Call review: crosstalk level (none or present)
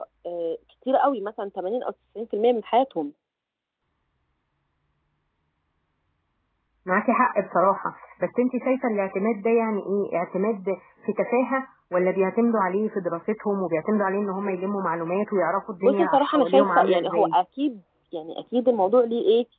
present